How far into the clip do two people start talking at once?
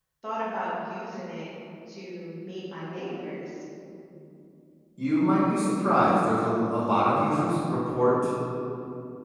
none

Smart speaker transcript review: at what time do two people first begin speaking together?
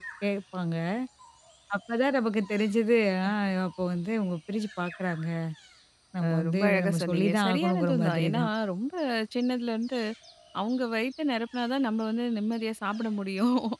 6.2 s

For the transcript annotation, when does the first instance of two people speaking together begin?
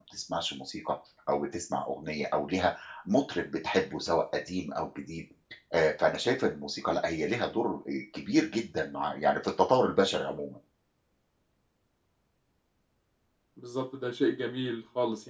none

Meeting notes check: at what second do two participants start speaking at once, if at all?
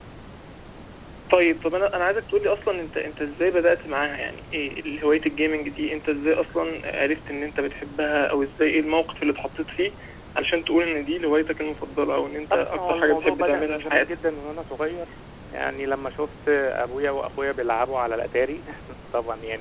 12.5 s

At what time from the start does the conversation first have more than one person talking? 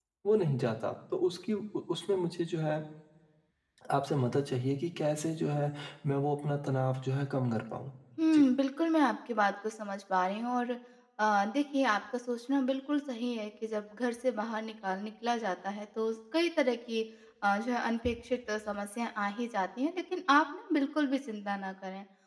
none

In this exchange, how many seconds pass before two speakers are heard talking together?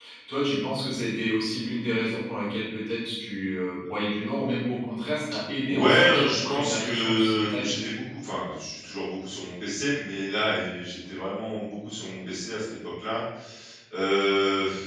5.6 s

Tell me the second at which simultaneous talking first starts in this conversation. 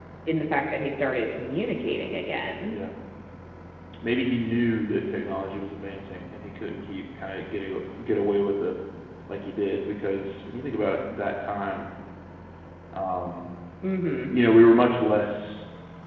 none

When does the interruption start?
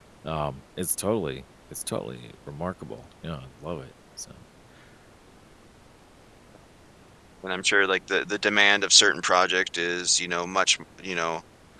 none

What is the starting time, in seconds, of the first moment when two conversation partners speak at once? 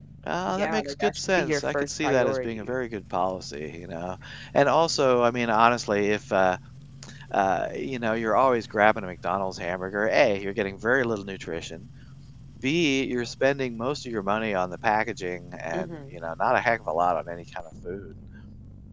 0.5 s

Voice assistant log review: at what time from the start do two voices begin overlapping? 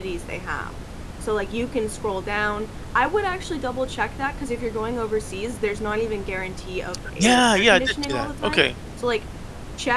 7.2 s

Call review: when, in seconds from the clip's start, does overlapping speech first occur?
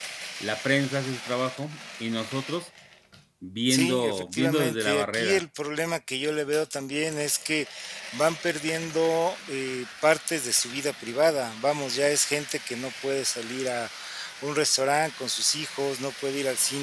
3.7 s

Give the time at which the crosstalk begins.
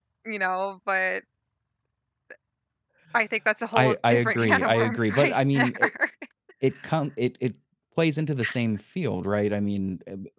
3.7 s

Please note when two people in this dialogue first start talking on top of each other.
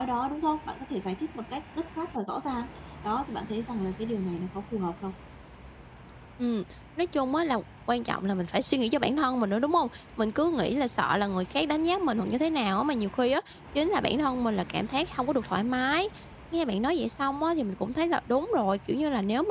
none

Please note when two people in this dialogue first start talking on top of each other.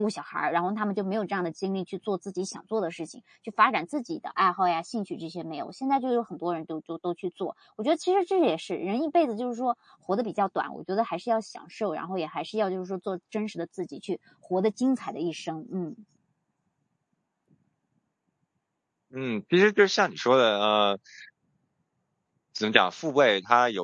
none

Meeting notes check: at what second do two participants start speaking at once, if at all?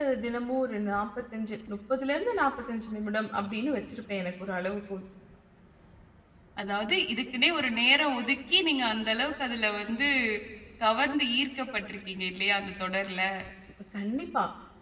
none

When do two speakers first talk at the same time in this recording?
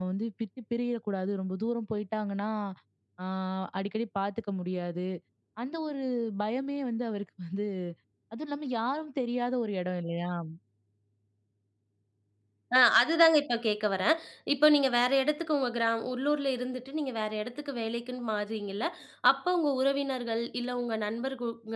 none

